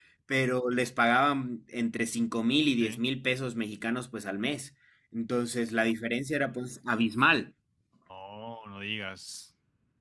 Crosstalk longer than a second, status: none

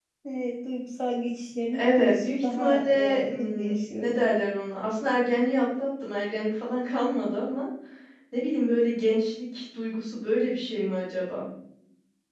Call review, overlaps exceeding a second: present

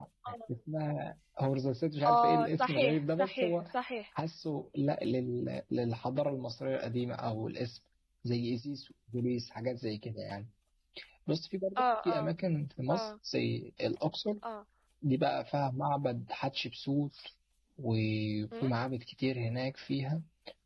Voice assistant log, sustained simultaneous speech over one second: present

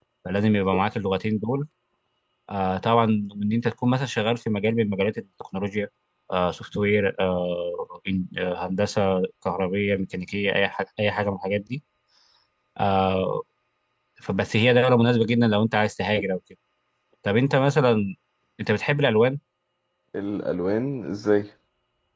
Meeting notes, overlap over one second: none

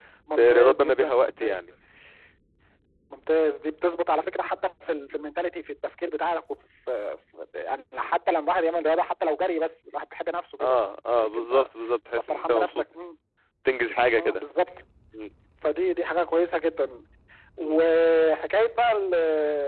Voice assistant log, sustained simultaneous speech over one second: present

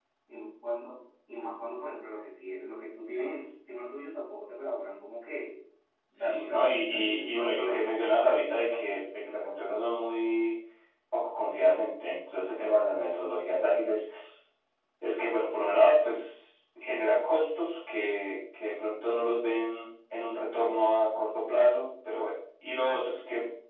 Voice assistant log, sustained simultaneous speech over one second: present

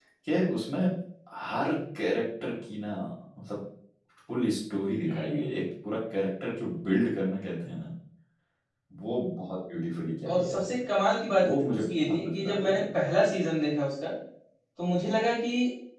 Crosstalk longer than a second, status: present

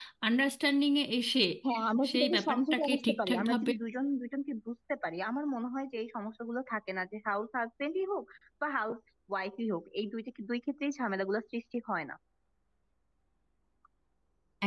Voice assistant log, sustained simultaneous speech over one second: present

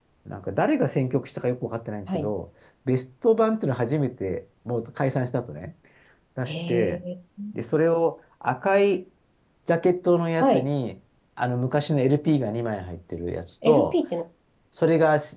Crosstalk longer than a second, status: none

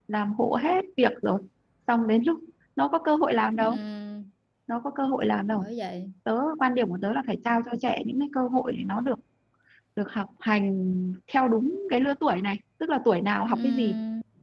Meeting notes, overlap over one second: none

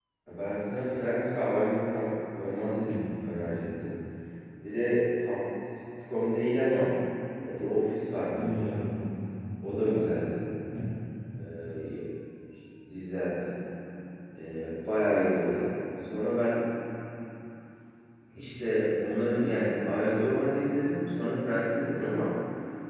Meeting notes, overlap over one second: none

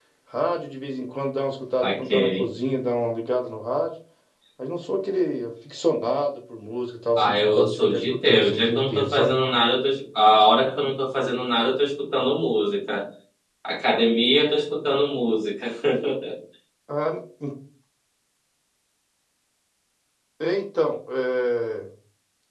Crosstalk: present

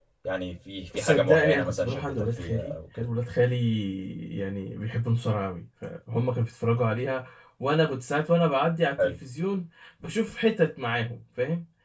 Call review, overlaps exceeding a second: present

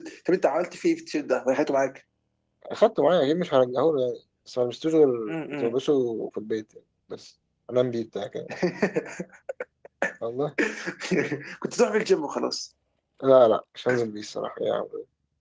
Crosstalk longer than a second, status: none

